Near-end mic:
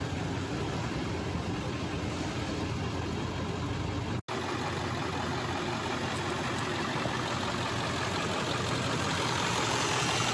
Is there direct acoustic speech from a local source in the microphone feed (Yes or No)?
No